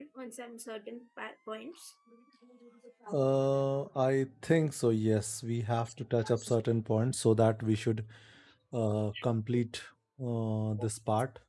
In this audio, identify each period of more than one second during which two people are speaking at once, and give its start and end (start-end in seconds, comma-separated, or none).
none